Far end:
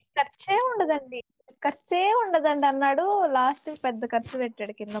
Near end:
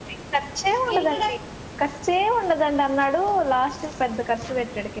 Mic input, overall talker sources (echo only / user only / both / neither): both